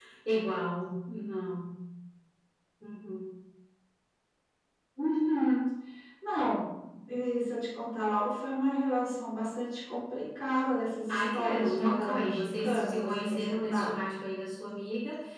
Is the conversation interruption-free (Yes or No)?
No